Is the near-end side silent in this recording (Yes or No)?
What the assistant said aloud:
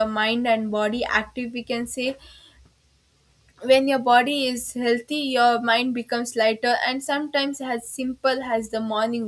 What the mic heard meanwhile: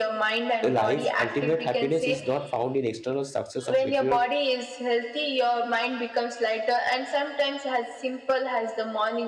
No